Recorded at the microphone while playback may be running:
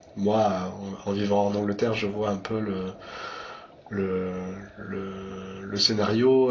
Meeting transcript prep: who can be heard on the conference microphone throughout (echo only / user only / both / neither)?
user only